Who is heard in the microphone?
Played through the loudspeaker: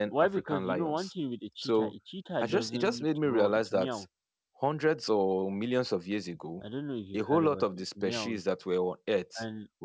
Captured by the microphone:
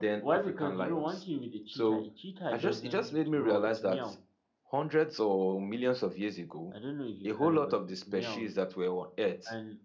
echo only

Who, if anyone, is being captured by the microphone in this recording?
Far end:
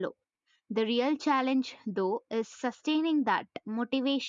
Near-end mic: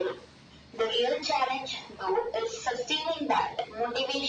echo only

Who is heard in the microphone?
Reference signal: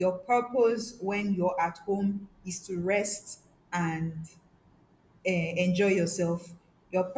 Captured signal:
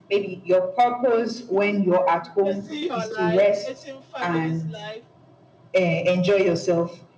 both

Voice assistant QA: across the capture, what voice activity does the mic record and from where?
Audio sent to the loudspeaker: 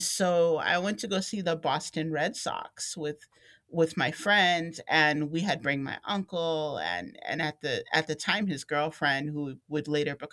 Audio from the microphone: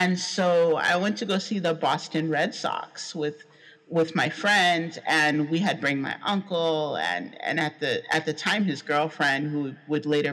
echo only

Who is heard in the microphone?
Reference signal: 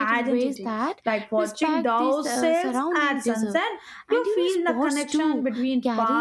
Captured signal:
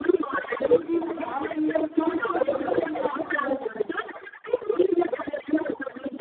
both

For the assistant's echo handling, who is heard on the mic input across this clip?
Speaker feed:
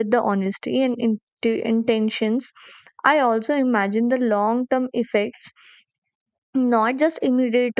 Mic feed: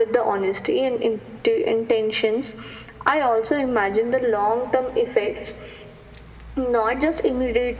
echo only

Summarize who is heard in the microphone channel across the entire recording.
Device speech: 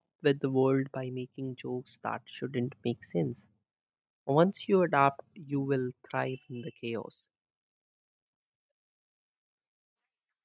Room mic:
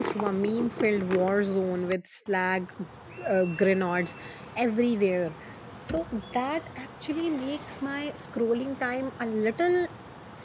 user only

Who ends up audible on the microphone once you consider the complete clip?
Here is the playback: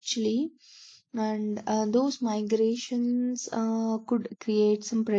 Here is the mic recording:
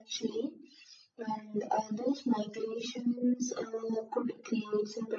echo only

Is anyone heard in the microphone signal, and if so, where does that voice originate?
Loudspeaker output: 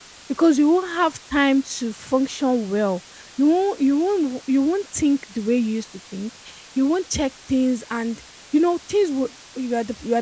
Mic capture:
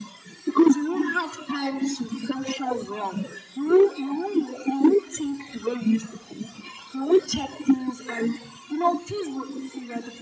echo only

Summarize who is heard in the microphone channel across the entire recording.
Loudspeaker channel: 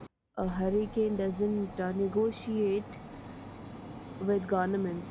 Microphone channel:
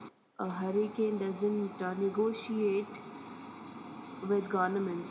echo only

